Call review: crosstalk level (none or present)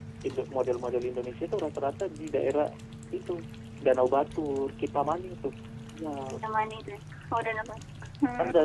none